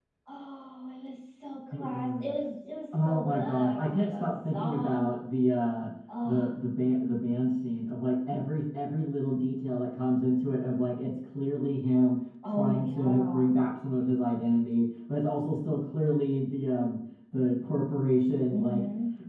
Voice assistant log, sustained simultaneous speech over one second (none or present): present